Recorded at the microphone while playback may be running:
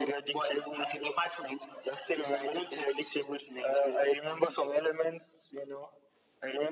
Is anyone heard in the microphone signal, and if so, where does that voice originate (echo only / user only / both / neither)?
echo only